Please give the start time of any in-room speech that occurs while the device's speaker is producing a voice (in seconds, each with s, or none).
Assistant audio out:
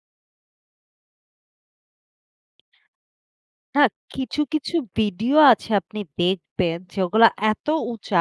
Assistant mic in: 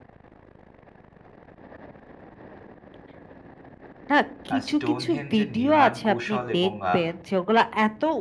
4.5 s